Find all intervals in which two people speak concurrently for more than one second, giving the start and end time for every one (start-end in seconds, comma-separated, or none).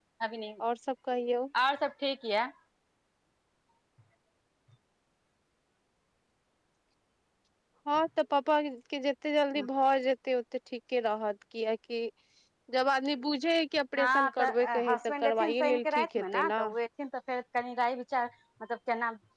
14.0-16.6